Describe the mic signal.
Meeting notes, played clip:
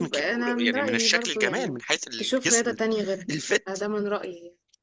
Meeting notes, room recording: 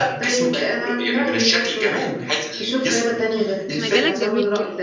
both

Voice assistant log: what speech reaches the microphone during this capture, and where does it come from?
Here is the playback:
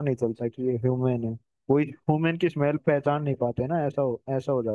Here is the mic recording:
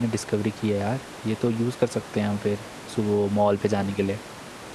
user only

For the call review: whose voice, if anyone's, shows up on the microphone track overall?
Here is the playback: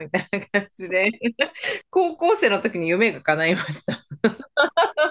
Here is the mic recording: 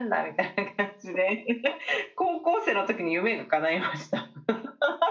echo only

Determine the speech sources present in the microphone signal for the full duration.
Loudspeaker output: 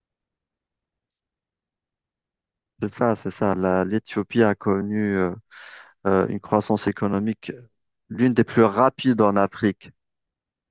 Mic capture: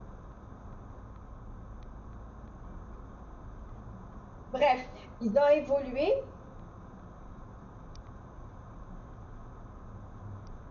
user only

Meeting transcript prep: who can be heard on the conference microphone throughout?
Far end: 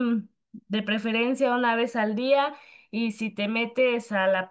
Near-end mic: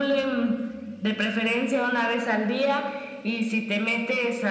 echo only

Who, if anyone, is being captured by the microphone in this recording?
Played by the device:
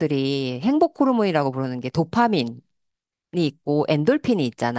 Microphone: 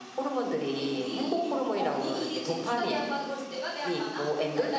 both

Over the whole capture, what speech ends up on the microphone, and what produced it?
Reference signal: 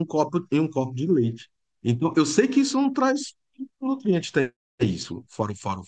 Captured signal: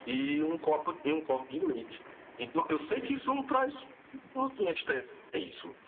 echo only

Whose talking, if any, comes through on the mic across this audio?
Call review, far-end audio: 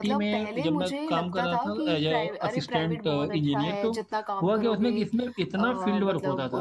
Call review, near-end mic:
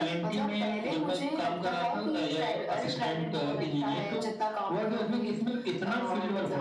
echo only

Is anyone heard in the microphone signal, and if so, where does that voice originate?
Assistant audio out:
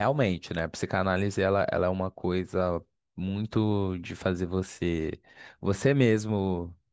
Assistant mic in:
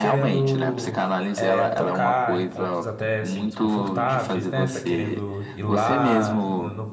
both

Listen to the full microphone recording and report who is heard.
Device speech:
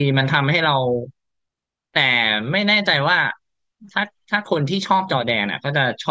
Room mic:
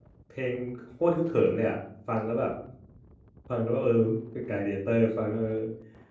user only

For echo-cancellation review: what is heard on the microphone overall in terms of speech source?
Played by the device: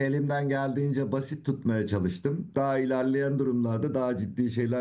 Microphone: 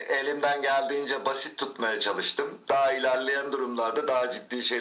echo only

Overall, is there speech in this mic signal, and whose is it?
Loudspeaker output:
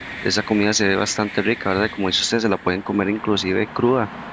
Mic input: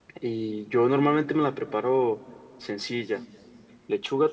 user only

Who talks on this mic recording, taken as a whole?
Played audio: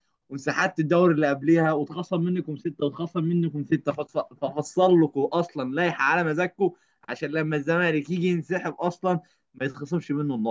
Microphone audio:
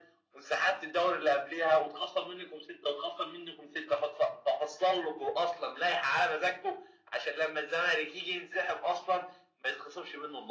echo only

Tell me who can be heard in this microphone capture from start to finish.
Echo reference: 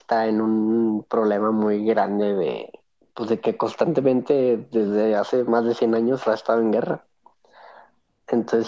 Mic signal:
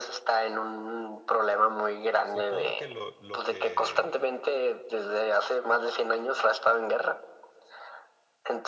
both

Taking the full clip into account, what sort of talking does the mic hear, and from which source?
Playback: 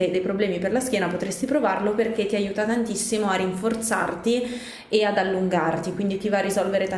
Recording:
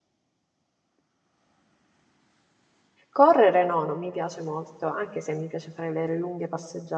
user only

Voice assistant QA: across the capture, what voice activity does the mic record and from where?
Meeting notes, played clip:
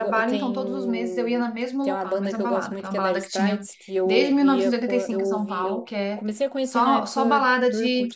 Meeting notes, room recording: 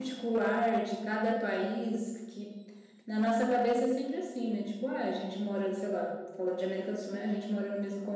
user only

